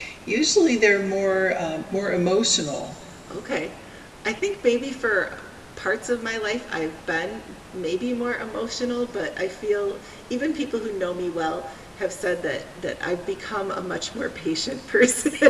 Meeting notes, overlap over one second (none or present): none